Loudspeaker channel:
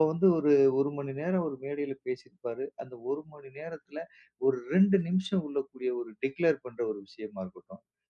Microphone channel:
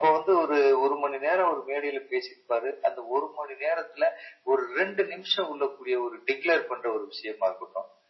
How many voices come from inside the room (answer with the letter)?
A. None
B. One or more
A